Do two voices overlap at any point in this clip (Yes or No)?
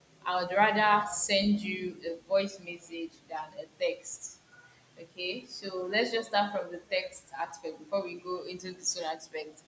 No